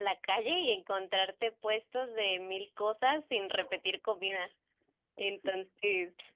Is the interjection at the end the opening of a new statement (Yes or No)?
No